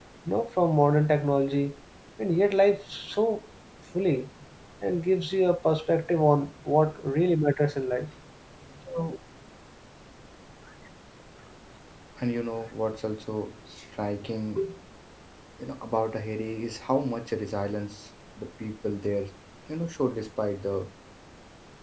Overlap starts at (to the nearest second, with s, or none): none